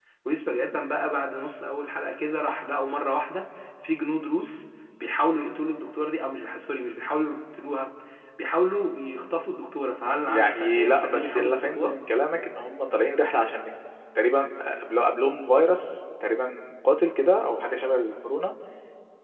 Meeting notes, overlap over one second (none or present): present